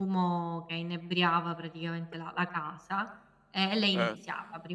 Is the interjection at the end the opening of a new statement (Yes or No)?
No